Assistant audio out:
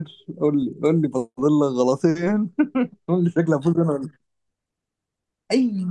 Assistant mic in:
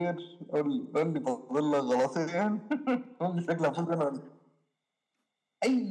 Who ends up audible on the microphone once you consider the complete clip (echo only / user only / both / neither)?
echo only